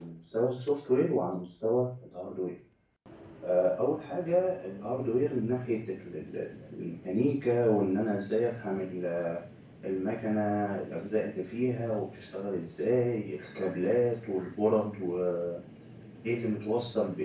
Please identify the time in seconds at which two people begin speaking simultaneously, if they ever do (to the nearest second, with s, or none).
none